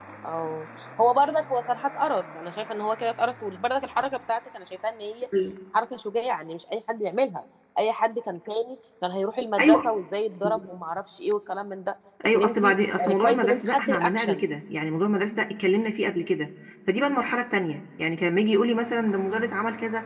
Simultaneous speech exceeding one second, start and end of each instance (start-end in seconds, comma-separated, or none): 12.2-14.4